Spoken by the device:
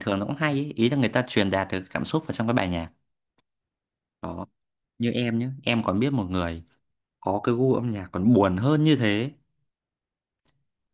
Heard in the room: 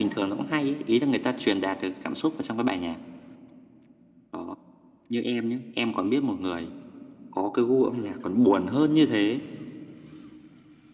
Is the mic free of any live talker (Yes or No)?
Yes